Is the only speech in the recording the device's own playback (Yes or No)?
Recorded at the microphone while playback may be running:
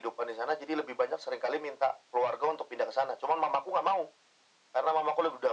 Yes